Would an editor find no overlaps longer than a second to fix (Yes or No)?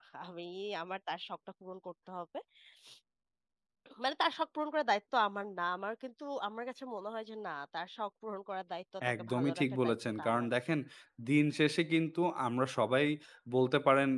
No